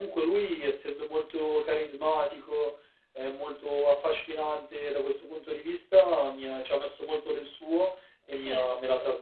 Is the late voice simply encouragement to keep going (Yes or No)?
Yes